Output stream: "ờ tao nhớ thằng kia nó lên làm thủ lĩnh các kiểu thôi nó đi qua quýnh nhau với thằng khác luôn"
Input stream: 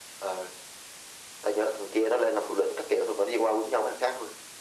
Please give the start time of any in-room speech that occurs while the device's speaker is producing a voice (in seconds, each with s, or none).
none